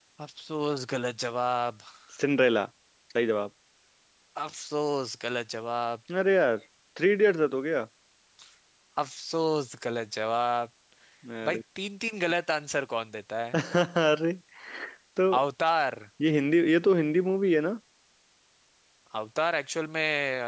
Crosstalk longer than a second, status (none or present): none